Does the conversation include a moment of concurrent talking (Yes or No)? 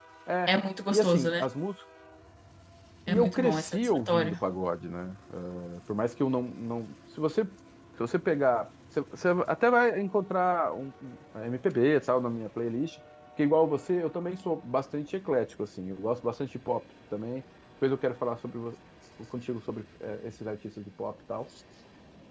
Yes